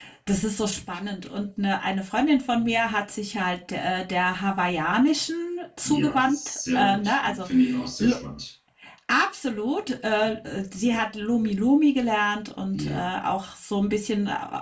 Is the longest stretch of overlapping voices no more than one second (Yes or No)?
No